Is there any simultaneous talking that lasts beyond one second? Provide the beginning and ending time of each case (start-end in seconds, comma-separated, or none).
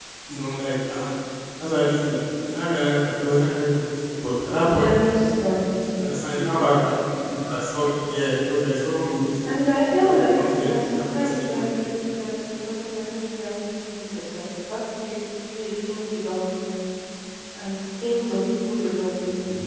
9.9-11.7